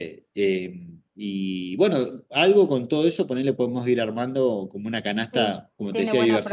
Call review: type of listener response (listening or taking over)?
taking over